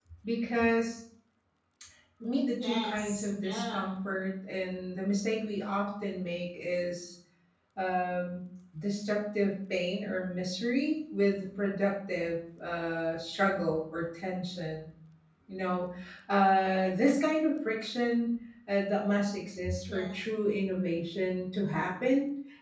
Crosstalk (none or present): present